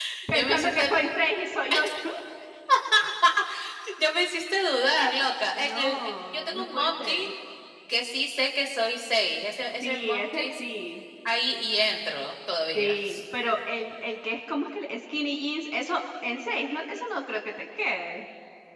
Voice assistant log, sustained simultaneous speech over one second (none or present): present